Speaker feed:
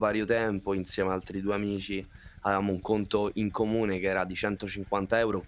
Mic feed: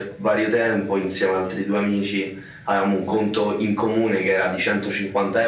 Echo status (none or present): present